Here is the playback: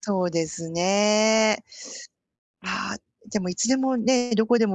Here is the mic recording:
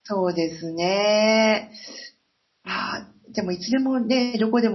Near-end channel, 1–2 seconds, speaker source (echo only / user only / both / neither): echo only